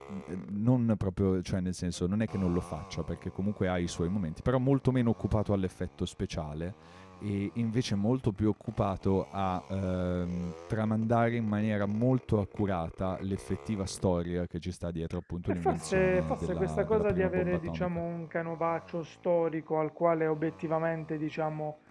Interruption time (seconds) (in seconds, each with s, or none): 15.5 s